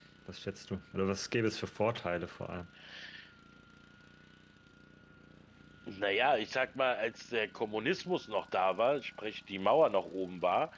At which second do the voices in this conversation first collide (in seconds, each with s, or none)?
none